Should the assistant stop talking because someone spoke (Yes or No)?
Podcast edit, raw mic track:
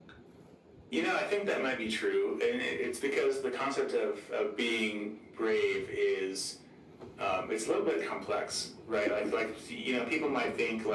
No